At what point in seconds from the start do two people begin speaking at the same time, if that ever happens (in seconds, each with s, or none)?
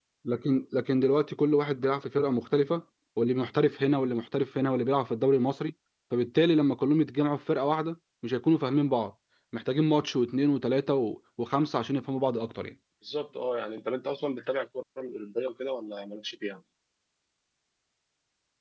none